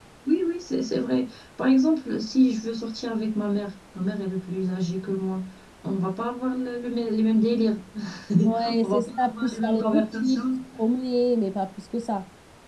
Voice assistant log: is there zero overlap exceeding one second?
No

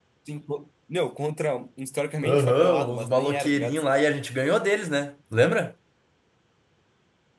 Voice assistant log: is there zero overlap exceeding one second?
No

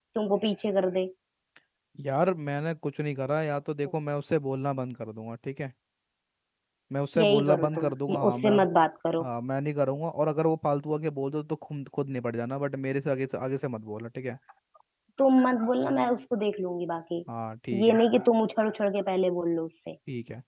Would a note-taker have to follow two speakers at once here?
Yes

